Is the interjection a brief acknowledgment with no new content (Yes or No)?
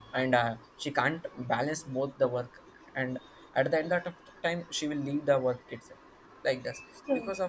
Yes